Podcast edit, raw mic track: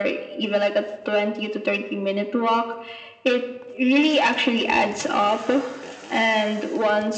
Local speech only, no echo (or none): none